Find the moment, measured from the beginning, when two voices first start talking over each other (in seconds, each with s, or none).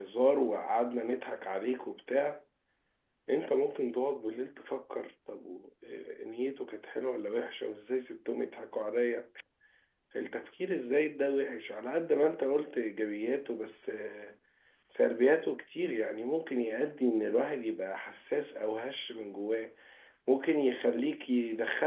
none